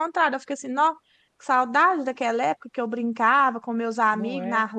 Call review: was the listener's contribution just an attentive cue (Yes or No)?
Yes